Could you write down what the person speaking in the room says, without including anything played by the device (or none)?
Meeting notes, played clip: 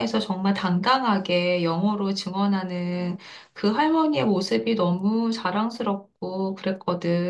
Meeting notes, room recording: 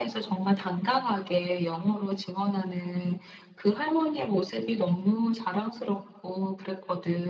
none